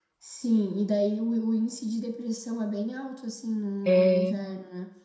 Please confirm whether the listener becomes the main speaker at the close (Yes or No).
No